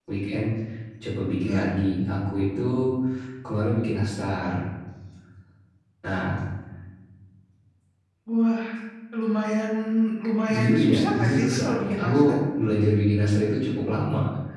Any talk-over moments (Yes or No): Yes